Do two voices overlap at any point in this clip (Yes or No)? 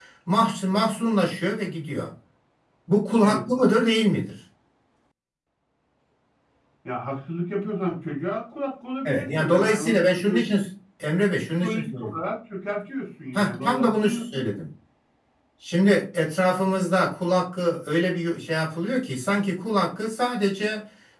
Yes